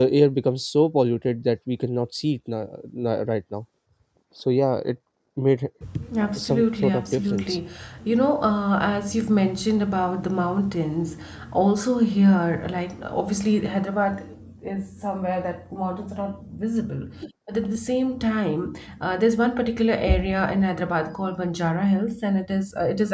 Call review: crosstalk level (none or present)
present